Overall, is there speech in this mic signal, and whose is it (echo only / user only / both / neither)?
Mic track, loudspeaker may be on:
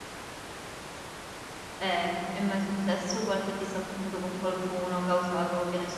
user only